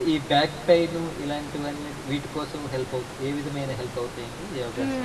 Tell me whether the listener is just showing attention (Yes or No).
No